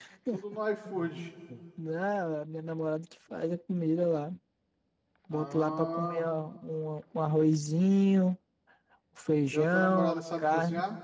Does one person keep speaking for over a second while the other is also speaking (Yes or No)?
Yes